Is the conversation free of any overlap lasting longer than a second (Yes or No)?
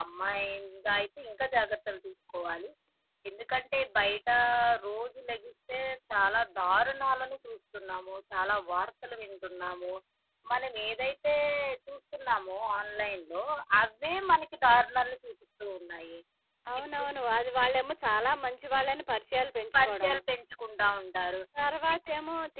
Yes